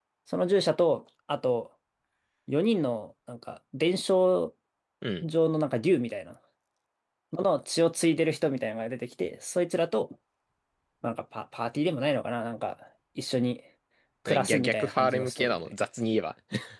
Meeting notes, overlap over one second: present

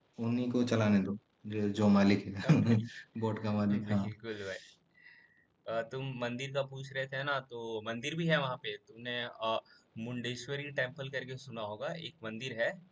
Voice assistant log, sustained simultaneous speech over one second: none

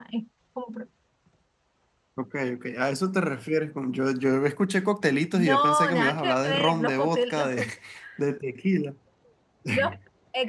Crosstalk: present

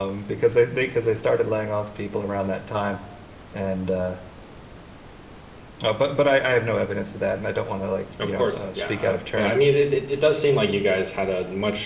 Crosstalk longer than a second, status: present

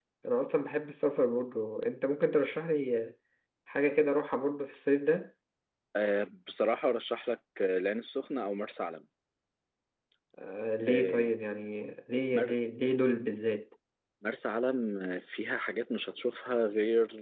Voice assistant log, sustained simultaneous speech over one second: none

